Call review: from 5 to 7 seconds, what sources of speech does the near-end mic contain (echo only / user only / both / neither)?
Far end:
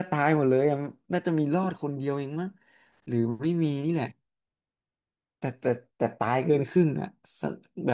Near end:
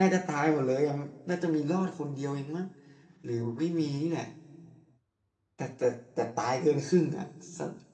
echo only